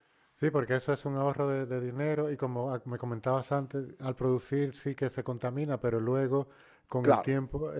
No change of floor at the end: No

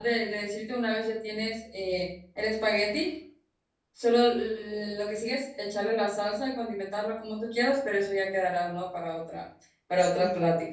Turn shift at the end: Yes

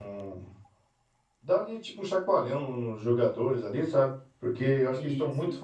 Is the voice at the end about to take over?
No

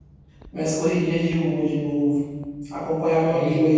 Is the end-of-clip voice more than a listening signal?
No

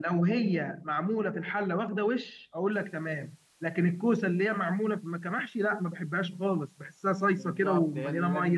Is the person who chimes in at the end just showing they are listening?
No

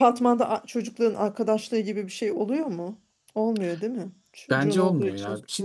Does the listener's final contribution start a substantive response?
Yes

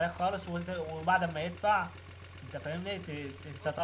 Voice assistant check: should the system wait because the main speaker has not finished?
Yes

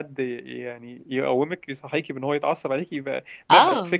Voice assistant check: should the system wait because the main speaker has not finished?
No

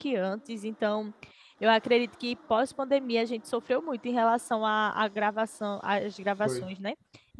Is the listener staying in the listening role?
Yes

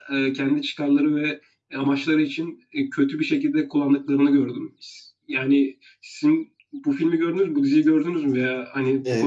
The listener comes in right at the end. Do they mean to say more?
Yes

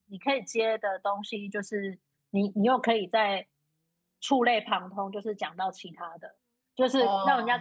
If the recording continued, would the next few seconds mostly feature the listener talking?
No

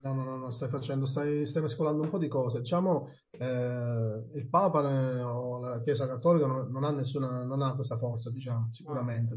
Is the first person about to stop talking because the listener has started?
No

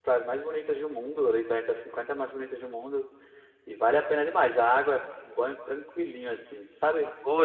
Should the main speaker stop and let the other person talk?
Yes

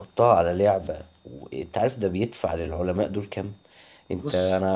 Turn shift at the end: No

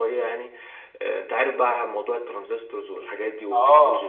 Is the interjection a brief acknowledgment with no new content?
No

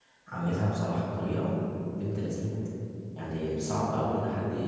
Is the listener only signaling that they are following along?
Yes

